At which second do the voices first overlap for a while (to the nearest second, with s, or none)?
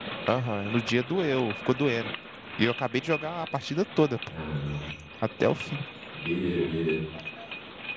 none